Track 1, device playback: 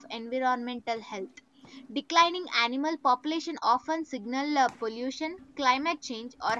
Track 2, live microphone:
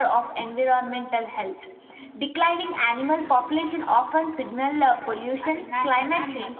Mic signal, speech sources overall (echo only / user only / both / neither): both